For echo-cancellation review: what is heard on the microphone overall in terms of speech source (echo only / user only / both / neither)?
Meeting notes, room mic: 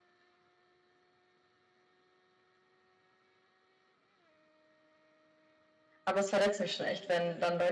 user only